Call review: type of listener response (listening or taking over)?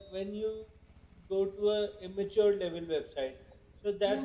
listening